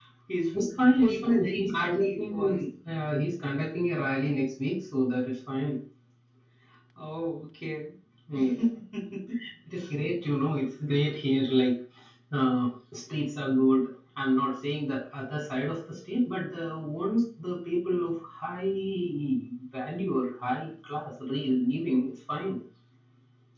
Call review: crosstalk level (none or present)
present